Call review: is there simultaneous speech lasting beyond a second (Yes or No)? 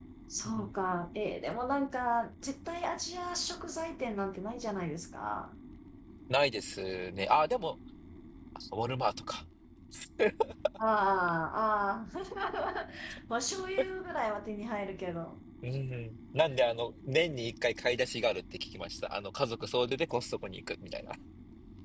No